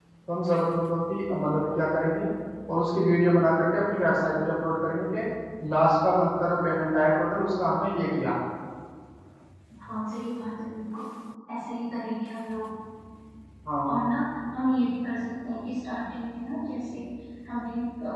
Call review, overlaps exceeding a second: none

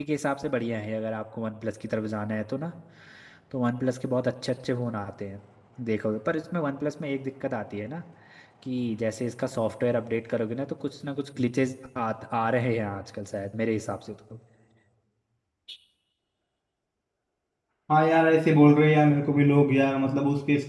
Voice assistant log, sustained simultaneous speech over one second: none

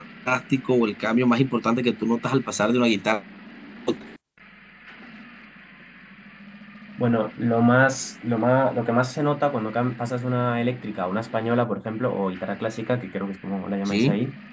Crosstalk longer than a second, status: none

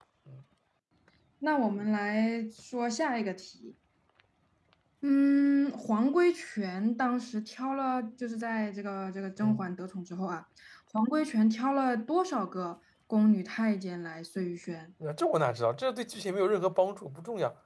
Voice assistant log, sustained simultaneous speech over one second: none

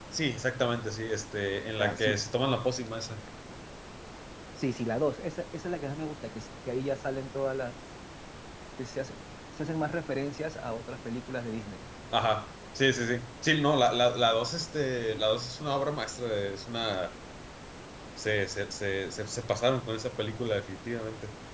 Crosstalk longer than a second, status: none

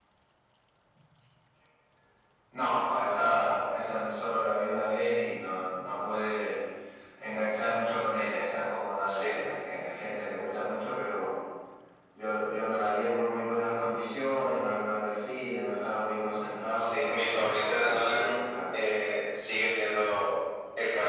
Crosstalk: present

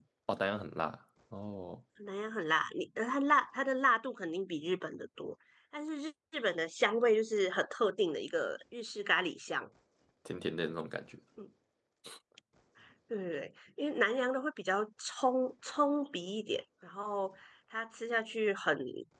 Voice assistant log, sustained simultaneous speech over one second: none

